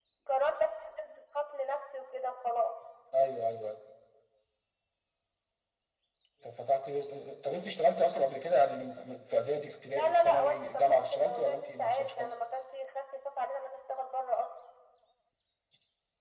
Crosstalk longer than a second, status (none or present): present